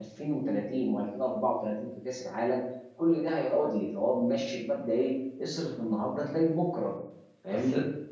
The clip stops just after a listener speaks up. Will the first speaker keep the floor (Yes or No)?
No